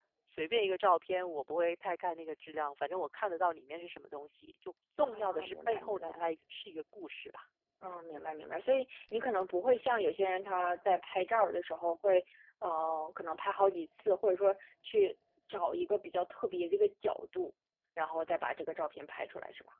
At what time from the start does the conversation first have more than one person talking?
5.0 s

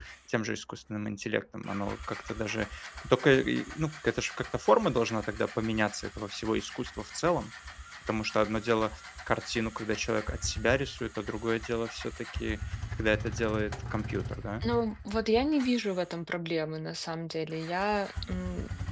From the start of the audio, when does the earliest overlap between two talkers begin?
none

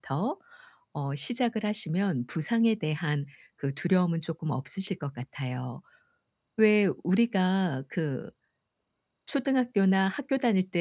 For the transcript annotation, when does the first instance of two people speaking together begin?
none

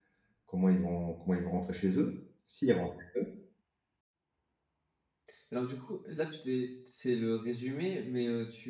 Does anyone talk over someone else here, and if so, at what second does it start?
none

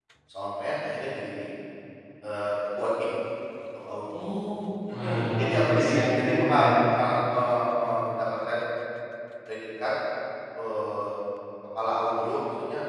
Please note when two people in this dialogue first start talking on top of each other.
4.9 s

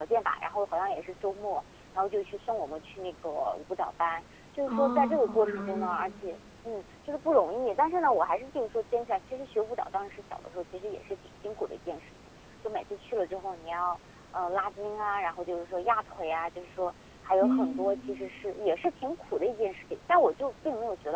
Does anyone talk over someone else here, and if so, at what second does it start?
4.7 s

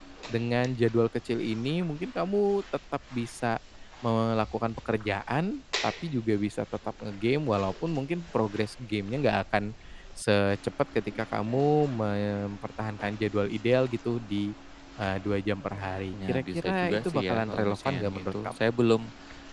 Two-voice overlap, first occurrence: 16.1 s

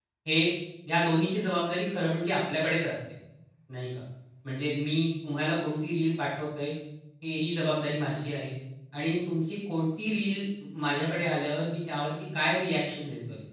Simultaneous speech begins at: none

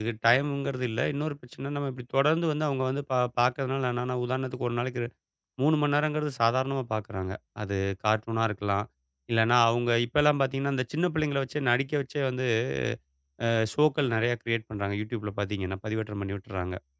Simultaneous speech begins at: none

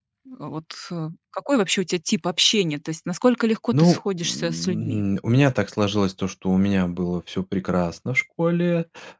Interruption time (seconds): 3.7 s

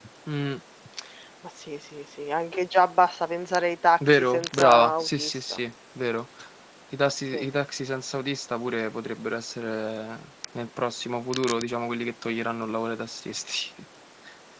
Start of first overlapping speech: 4.0 s

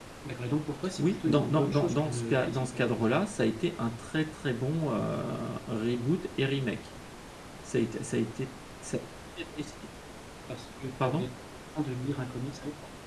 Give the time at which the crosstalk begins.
1.0 s

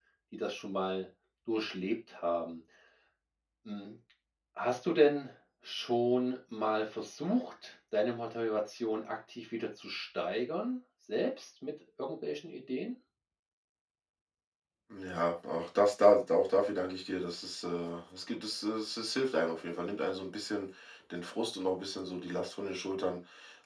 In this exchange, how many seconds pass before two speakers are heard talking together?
none

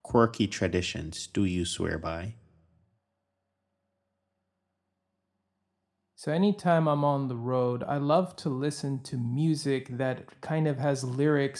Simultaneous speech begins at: none

